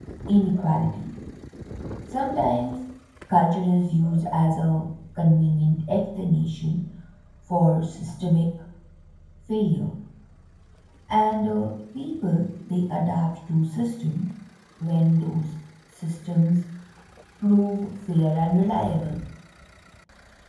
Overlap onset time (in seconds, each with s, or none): none